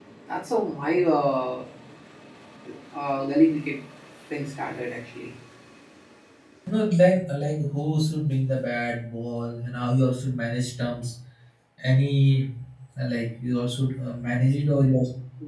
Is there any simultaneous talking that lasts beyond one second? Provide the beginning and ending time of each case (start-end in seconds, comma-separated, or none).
none